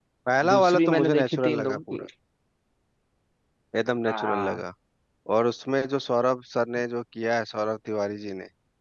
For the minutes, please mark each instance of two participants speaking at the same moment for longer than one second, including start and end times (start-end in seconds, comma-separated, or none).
0.6-2.0